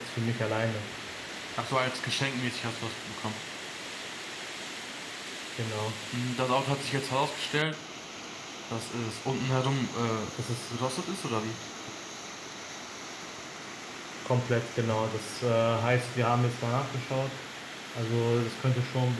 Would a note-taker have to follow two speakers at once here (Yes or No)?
No